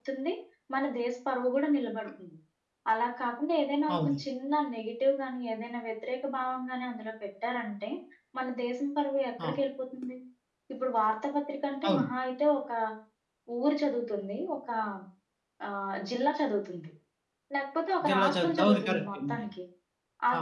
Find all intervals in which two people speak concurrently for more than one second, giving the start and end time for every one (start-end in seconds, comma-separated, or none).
18.1-19.3